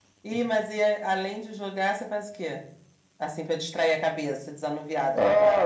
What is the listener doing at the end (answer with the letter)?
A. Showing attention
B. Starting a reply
B